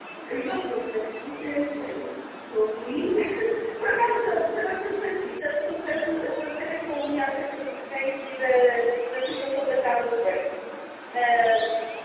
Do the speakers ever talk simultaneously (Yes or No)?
No